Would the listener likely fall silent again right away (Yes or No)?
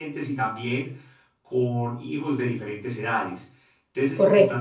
Yes